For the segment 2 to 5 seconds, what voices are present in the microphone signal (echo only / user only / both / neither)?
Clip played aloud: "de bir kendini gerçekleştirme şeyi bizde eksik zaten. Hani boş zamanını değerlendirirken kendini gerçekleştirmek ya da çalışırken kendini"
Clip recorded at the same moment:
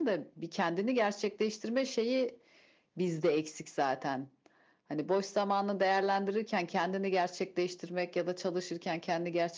echo only